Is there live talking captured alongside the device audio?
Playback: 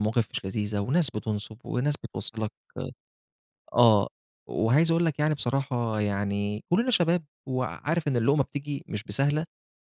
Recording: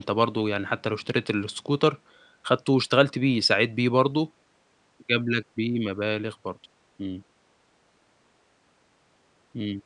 Yes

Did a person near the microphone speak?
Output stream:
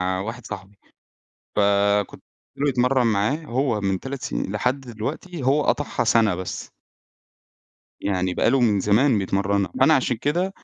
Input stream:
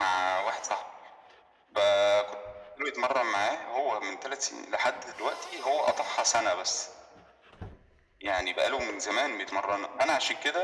No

